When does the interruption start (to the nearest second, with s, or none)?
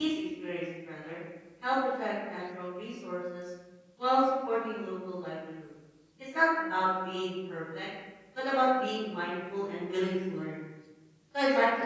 none